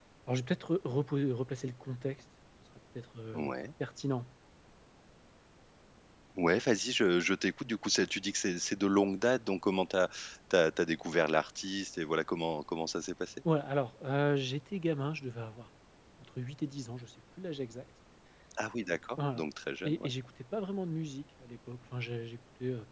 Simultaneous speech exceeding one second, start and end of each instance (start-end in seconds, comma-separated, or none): none